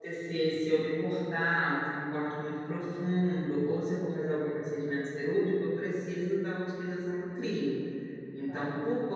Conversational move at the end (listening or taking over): listening